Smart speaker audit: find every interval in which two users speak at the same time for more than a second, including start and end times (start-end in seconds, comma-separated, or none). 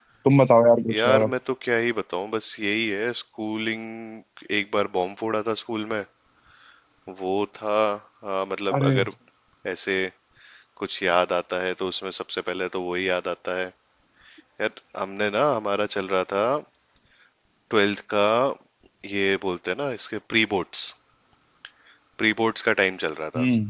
none